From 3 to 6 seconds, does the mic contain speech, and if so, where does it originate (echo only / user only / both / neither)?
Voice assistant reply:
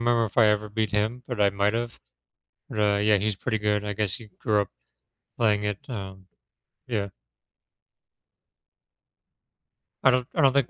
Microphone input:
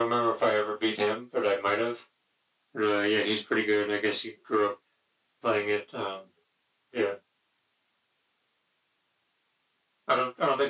echo only